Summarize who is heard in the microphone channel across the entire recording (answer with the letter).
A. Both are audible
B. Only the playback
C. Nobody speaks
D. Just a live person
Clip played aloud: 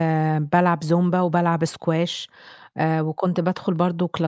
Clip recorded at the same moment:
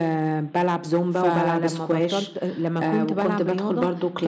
A